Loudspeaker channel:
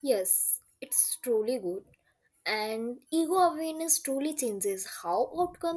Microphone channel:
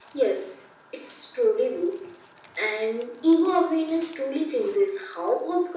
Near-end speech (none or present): none